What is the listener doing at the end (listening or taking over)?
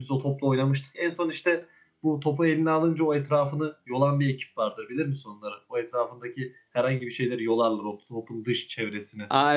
taking over